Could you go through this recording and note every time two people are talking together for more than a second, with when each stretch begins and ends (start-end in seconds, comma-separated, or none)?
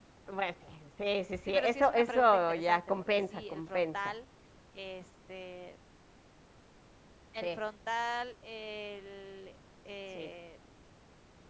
1.5-4.0